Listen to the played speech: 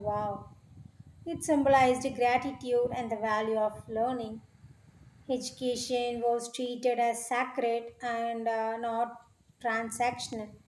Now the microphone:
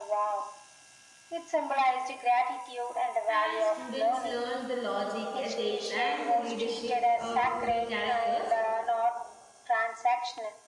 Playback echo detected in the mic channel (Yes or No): Yes